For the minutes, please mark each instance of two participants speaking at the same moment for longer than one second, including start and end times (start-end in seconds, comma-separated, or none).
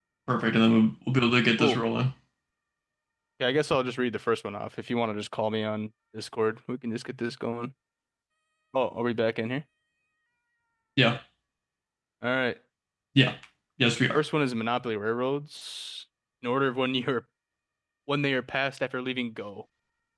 none